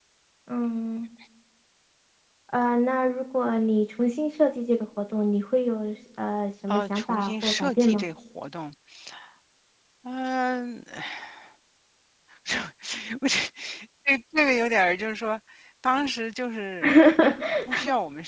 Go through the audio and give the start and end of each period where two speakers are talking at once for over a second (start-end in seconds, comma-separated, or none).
6.7-8.0